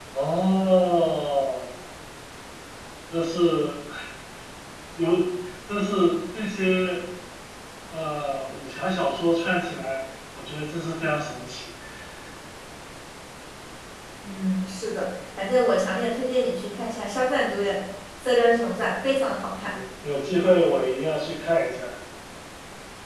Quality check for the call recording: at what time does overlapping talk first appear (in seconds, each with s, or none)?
none